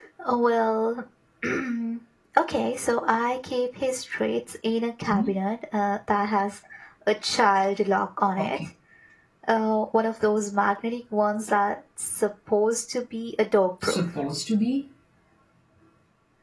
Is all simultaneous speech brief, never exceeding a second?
Yes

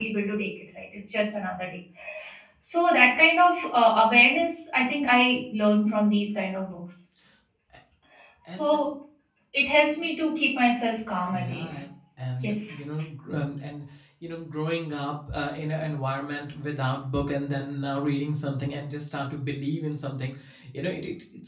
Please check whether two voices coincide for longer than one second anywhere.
No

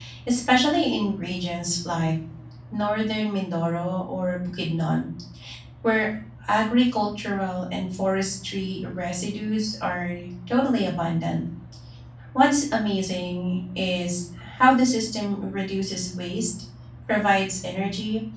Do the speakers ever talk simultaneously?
No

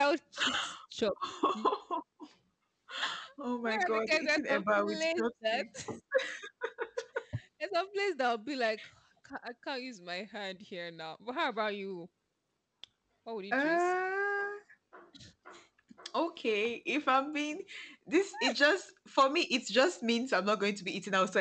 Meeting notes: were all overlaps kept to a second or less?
No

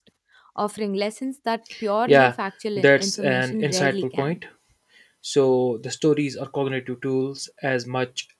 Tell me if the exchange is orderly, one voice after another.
No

